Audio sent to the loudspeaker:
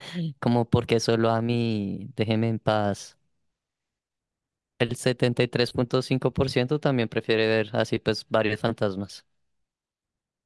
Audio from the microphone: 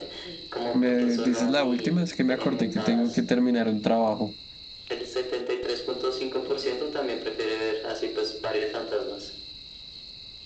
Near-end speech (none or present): present